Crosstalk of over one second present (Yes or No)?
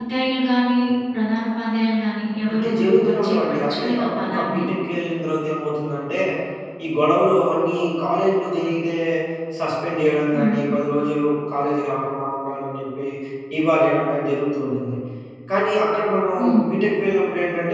Yes